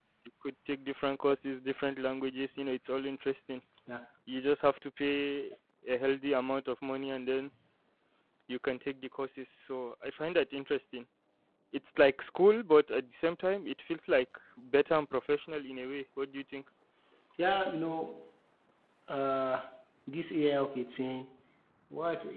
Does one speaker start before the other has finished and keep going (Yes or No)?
No